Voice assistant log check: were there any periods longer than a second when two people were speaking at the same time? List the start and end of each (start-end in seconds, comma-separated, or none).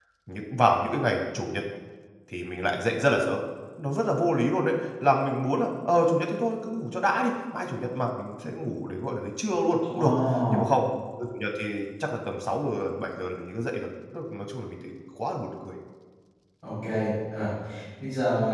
none